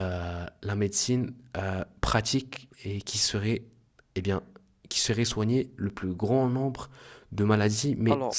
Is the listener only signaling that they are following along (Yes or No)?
Yes